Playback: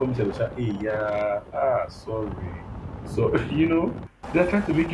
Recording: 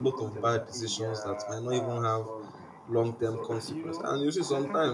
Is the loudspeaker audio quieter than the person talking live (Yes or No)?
Yes